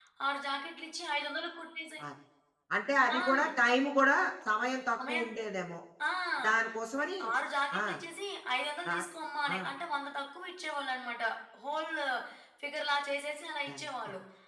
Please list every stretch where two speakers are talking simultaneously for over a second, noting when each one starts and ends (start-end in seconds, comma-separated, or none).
none